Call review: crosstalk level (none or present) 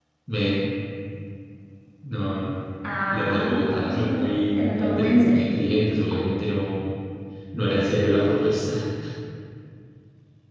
present